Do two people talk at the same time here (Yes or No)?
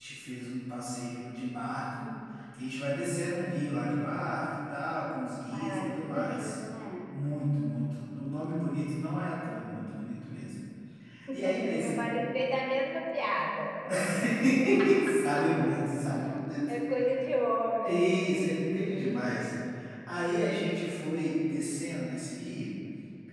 Yes